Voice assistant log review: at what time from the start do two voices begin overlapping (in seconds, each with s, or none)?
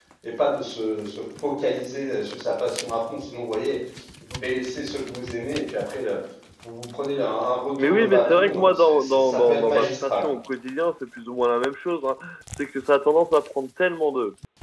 7.8 s